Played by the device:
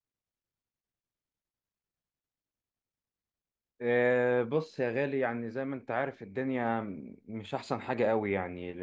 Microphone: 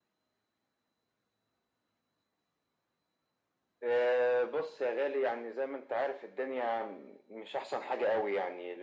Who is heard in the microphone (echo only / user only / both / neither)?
echo only